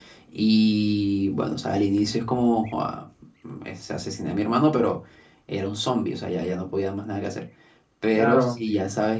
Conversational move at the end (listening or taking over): listening